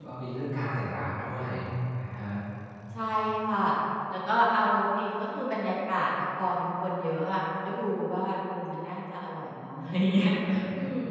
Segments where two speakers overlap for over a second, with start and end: none

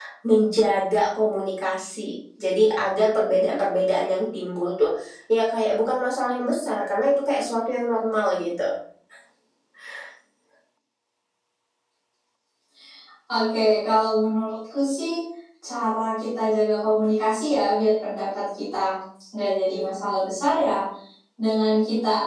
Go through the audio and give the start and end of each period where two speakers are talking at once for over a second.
none

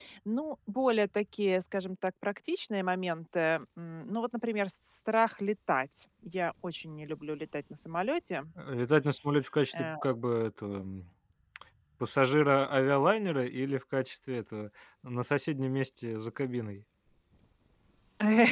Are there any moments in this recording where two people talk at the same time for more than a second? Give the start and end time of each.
none

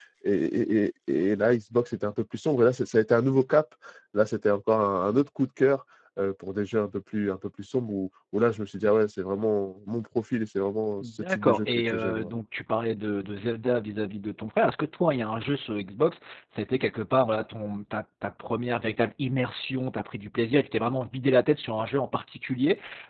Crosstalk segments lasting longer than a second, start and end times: 11.0-12.3

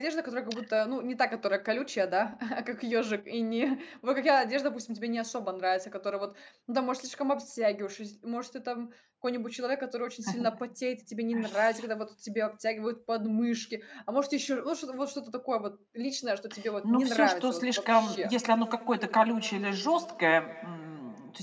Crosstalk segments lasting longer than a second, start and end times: 16.8-18.3

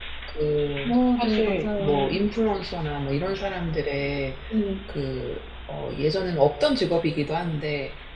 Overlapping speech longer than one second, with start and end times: 0.8-2.0

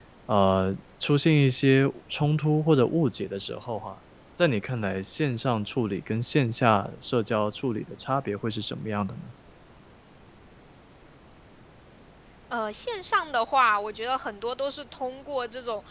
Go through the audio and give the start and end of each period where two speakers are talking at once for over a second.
none

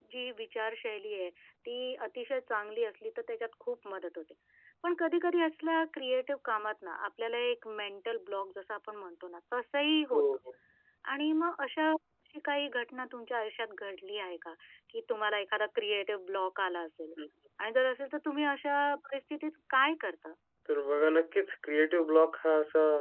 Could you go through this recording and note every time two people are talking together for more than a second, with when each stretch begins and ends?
none

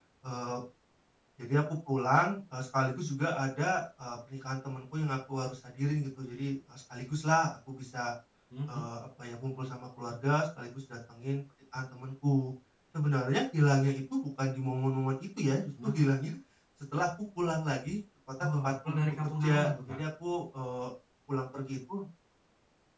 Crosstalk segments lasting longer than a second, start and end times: 18.5-20.0

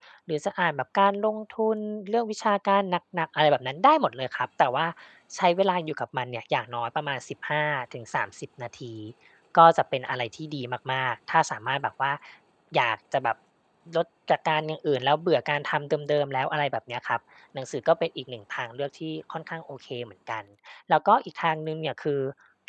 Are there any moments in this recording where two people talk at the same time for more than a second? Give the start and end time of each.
none

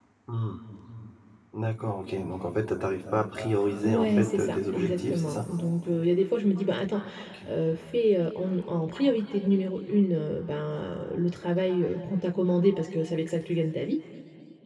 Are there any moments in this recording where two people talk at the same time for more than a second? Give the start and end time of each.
3.8-5.5

